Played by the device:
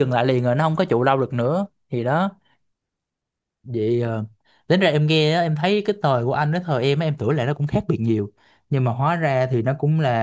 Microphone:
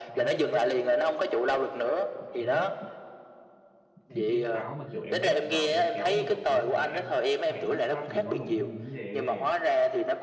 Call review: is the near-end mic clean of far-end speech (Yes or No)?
No